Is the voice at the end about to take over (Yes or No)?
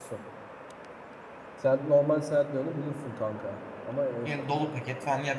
Yes